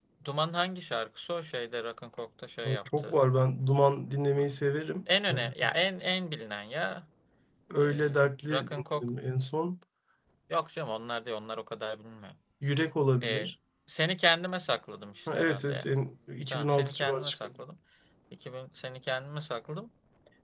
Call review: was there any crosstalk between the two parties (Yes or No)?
Yes